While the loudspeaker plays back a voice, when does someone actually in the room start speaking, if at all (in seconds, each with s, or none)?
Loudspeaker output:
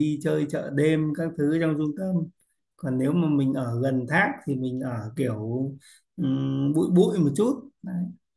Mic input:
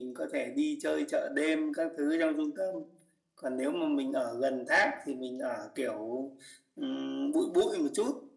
none